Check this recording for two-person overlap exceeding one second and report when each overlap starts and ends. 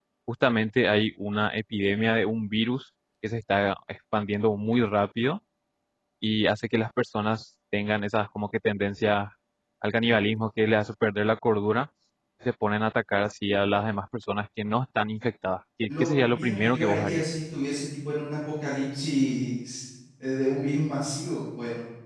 15.9-17.2

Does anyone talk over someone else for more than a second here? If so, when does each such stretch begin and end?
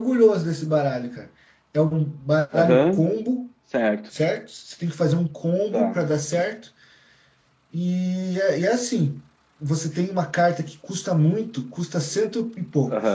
none

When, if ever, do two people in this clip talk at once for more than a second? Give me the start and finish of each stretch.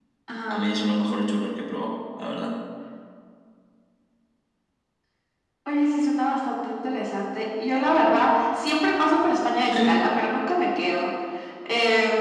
none

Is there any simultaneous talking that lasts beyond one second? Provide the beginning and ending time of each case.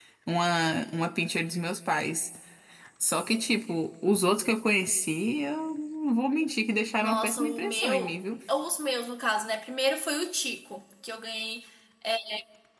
7.0-8.2

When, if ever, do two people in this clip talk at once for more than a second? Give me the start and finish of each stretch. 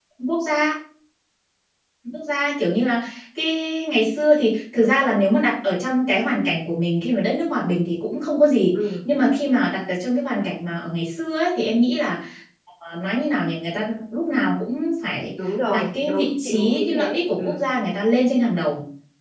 15.7-17.6

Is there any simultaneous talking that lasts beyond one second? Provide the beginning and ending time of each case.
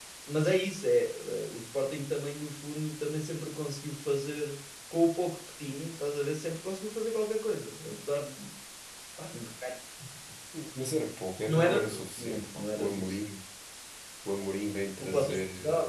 11.5-13.2

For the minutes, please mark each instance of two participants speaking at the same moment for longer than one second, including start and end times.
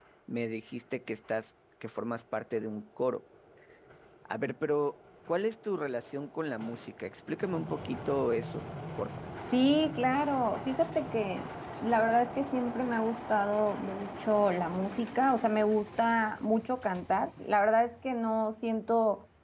none

